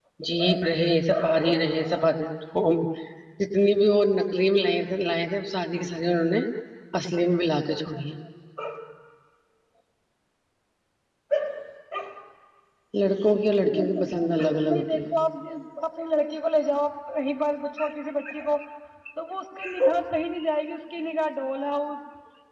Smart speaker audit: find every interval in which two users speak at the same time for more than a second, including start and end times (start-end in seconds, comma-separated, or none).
13.7-15.1